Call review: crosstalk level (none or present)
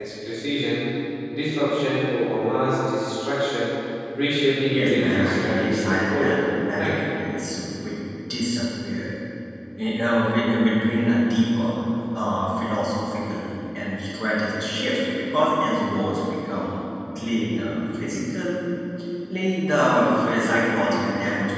present